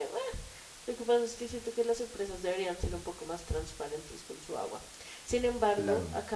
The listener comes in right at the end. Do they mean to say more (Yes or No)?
No